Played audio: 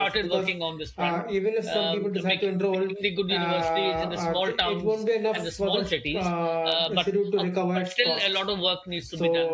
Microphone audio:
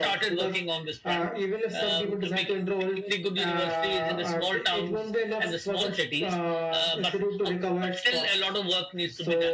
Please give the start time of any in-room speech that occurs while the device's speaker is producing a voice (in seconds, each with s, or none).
none